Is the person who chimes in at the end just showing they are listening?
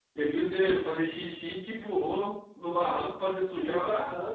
No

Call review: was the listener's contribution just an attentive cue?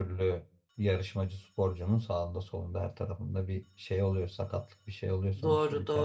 No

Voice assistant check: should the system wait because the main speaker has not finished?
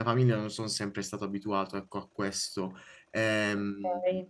No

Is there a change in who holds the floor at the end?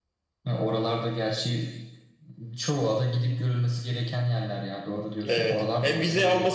Yes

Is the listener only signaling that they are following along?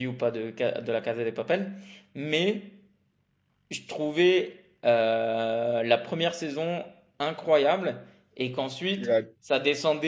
Yes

